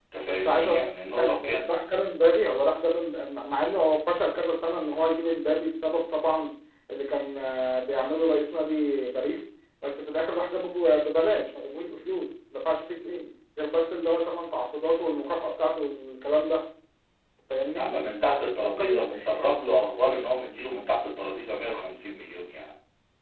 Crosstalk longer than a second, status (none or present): present